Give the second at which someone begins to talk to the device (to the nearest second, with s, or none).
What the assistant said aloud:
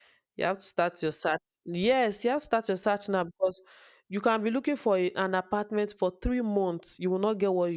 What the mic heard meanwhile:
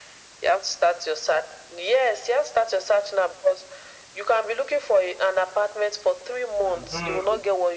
7 s